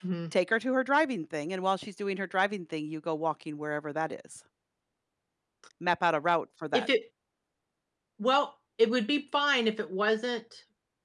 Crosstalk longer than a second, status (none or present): none